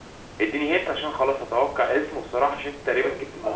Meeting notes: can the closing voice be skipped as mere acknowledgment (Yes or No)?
No